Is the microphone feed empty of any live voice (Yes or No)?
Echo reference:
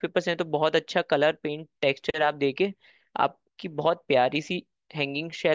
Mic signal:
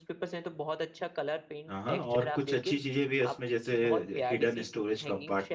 No